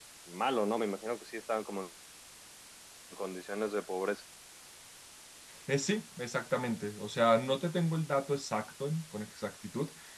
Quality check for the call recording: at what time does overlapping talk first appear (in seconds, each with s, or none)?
none